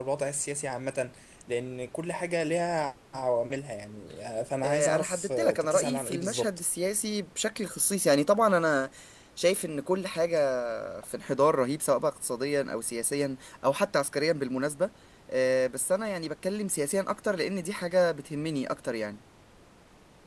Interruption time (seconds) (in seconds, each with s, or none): 4.6 s